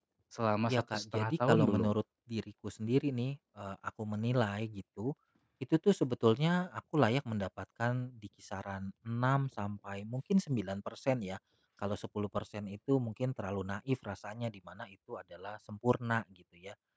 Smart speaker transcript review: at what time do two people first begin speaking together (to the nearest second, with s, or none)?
1 s